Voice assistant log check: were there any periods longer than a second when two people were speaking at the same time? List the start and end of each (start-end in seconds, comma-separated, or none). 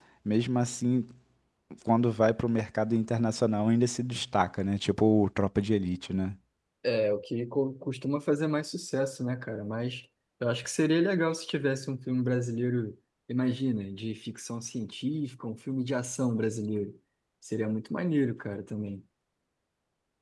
none